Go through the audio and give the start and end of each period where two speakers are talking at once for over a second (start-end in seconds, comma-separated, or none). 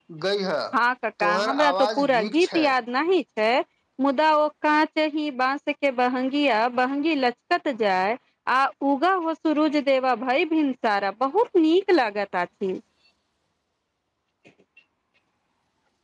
1.2-2.7